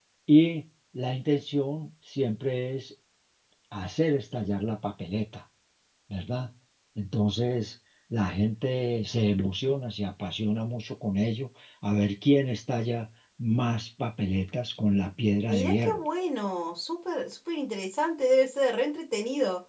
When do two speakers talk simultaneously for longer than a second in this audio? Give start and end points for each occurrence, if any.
none

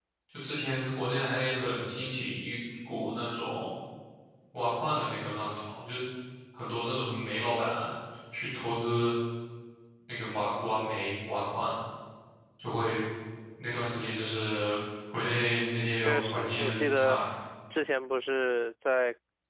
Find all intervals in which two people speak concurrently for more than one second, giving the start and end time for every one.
16.0-17.2

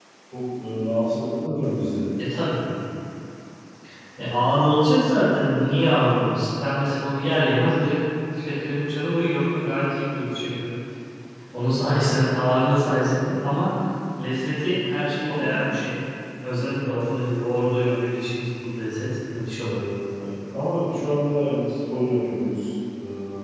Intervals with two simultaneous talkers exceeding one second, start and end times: none

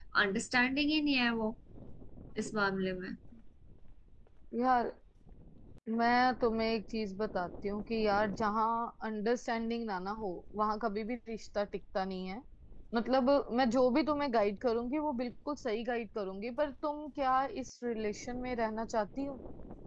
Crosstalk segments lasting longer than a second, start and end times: none

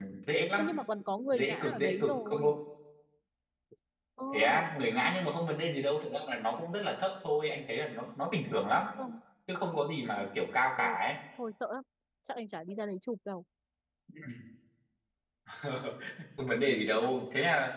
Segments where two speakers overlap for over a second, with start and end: 1.3-2.5

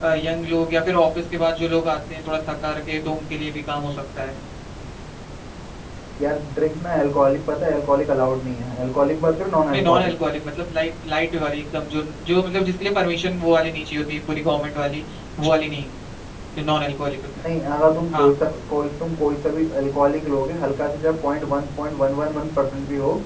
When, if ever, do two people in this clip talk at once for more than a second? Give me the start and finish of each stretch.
none

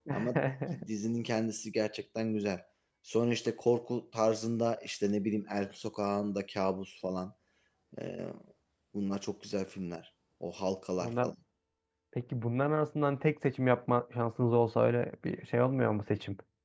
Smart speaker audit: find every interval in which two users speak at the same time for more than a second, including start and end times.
none

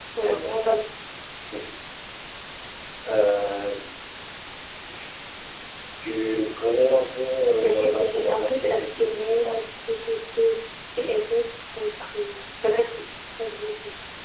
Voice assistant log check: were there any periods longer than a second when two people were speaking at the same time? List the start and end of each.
7.6-9.6

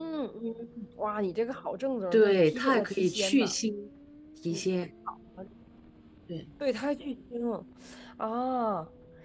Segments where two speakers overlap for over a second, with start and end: 2.1-3.5

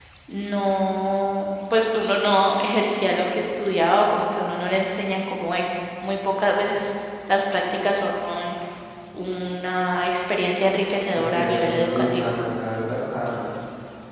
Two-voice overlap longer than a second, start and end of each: 11.1-12.3

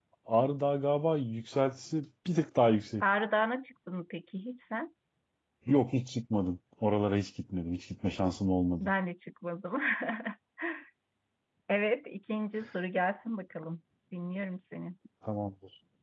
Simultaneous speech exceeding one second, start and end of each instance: none

